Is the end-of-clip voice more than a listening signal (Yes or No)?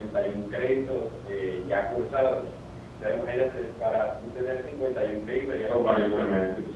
Yes